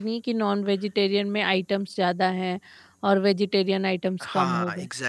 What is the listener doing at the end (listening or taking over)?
taking over